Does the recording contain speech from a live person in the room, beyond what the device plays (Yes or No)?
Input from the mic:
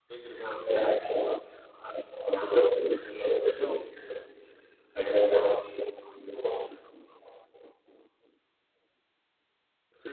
Yes